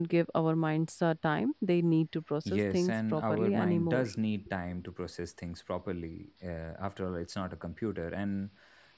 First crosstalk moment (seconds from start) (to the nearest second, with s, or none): 2 s